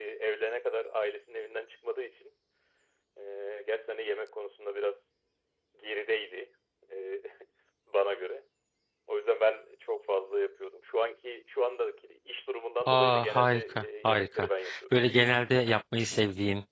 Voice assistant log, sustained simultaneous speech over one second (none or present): present